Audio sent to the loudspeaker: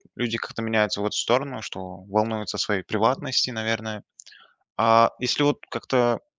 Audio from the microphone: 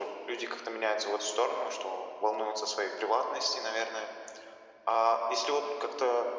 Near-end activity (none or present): none